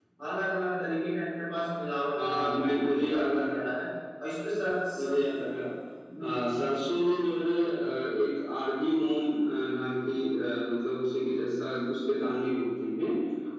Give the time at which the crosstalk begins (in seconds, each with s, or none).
2.3 s